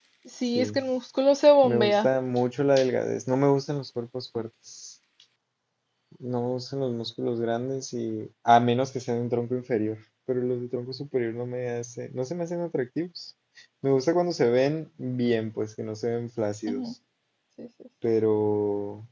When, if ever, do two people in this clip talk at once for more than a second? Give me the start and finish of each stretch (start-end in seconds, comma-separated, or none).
none